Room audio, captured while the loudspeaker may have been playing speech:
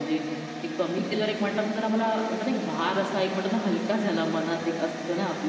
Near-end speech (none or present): none